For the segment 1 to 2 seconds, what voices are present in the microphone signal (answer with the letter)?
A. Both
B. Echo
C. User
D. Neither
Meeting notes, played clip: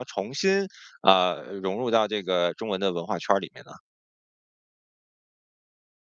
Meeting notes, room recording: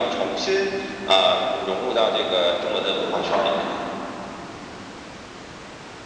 B